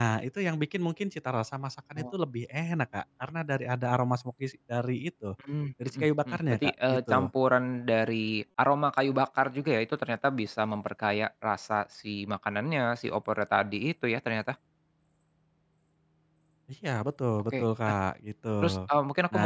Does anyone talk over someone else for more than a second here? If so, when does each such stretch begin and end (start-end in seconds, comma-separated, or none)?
5.9-7.3